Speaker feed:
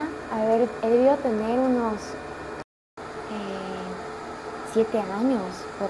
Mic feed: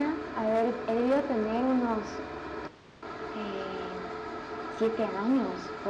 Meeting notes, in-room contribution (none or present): none